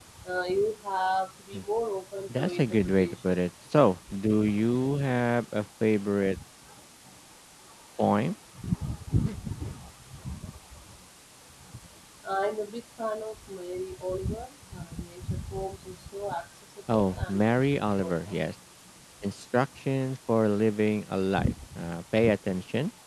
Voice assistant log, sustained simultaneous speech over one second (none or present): present